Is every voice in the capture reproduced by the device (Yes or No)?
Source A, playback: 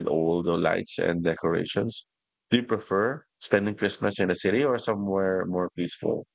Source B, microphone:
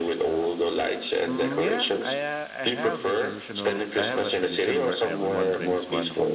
No